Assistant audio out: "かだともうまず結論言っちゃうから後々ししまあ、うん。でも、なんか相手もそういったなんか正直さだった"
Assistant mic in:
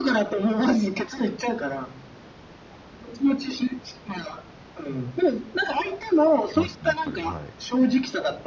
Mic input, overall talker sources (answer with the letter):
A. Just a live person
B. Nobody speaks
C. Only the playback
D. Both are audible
D